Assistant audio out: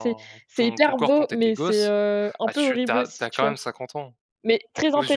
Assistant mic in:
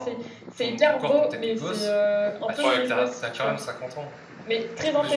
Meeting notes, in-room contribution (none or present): present